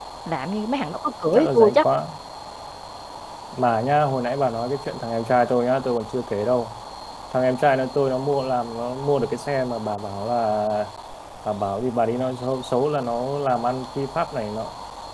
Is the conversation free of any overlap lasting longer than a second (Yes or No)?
Yes